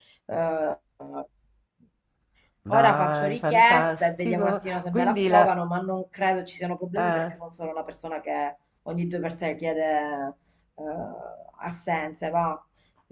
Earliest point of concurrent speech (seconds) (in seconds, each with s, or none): 2.7 s